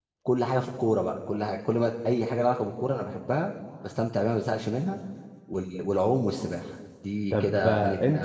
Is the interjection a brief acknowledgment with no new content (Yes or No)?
No